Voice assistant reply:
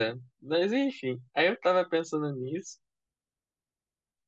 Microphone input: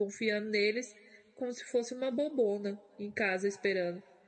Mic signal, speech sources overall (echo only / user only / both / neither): user only